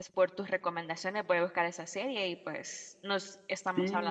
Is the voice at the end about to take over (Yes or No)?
Yes